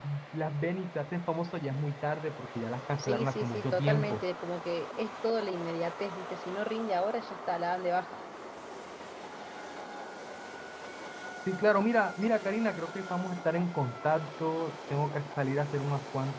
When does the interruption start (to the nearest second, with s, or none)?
3 s